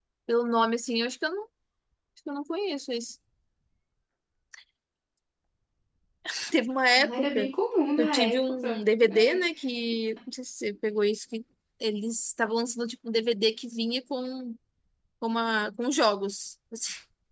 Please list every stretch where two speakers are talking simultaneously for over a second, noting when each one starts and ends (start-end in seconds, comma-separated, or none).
8.0-9.4